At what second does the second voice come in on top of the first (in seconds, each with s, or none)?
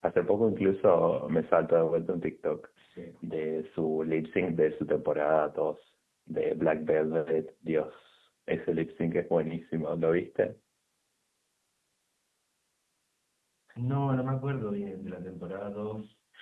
none